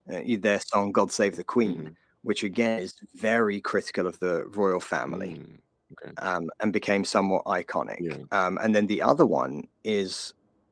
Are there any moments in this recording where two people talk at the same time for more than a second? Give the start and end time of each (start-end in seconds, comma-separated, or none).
none